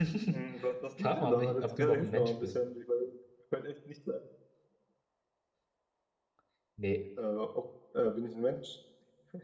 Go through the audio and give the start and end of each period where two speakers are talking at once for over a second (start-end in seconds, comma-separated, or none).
1.0-2.5